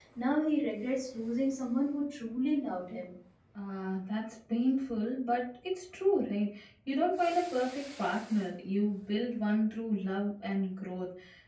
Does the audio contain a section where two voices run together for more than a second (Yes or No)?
No